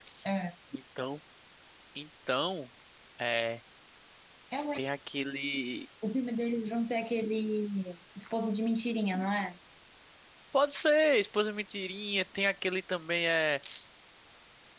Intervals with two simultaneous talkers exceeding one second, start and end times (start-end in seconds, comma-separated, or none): none